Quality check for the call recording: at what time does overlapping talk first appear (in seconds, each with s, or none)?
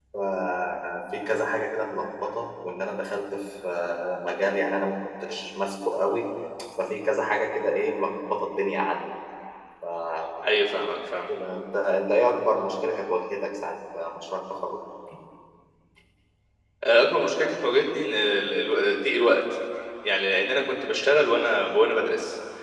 none